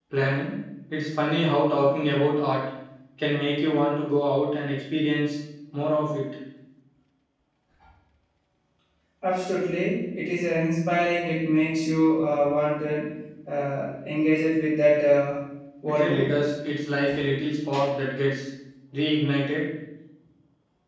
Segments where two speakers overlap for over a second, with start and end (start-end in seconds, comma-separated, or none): none